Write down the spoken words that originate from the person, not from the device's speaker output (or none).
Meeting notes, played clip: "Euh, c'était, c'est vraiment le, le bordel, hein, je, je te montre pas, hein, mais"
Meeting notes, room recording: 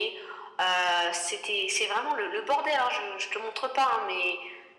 none